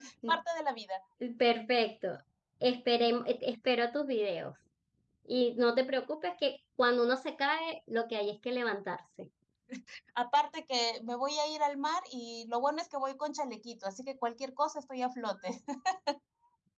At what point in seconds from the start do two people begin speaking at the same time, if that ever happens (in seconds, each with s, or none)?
none